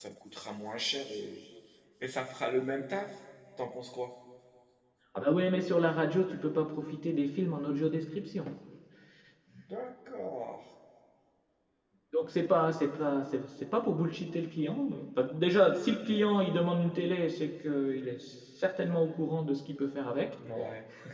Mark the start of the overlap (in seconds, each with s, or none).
none